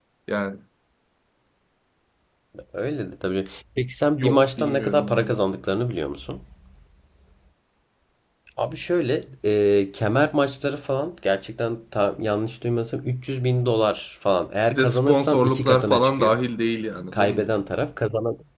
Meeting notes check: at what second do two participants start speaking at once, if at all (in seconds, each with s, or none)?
4.2 s